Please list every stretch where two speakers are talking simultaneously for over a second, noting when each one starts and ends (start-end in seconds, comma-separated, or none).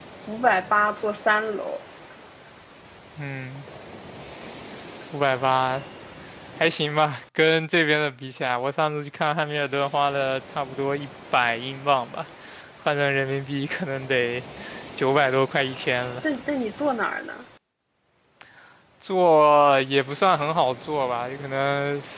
none